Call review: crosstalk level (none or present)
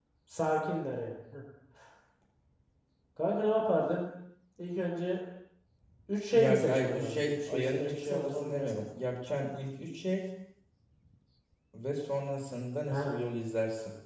present